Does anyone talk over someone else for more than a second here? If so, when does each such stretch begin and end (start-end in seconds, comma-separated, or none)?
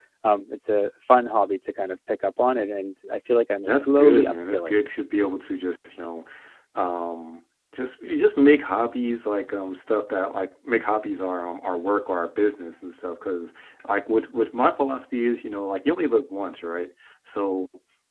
3.6-4.8